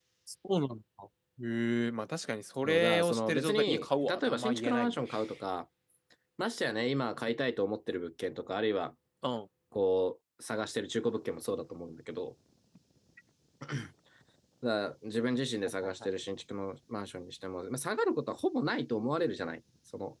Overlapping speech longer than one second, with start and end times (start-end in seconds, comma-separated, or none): 2.6-5.0